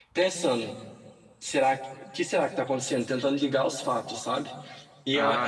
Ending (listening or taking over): taking over